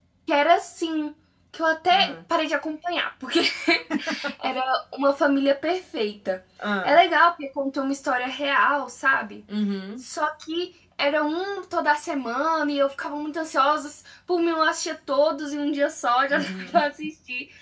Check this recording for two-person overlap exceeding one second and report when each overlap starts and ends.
none

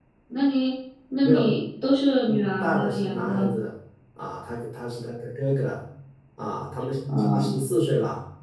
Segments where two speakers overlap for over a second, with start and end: 2.2-3.5

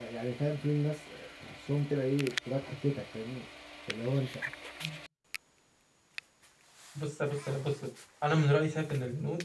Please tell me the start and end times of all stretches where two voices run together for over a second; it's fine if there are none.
none

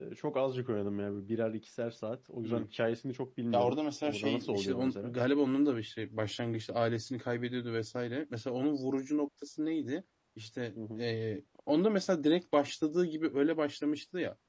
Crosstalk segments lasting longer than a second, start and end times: 3.5-5.1

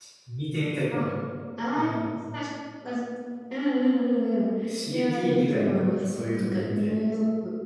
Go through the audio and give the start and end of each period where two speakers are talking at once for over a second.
4.9-6.9

